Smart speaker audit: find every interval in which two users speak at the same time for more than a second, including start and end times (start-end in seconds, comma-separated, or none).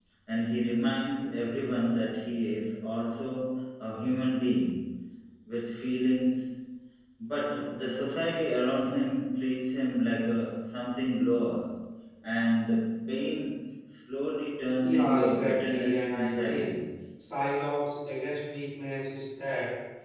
14.8-16.8